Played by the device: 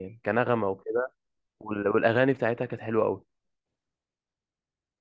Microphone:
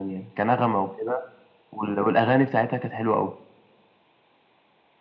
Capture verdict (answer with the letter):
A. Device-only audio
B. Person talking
A